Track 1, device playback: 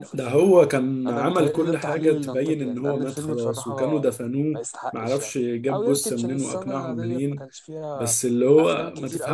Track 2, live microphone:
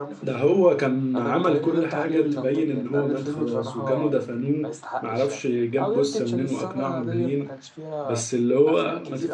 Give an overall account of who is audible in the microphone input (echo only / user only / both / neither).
echo only